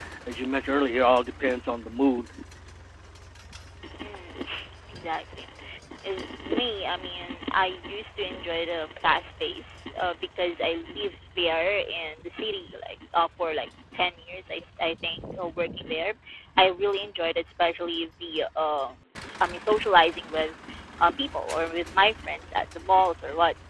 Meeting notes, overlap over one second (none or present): none